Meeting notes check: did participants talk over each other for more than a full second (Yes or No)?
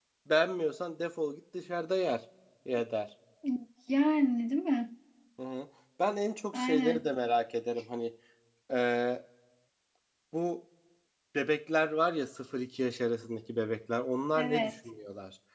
No